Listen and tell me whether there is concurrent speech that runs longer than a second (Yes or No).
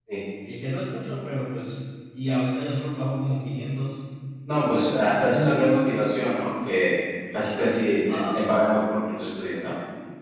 No